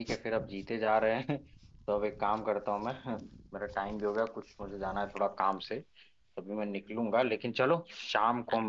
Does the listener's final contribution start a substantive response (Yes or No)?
No